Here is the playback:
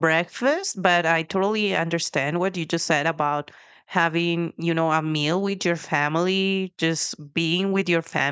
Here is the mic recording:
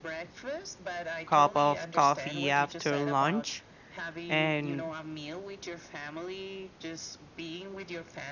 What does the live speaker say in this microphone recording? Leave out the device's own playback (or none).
cup of coffee after lunch. And